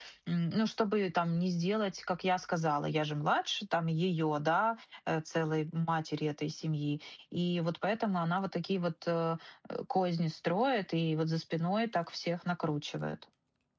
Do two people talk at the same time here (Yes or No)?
No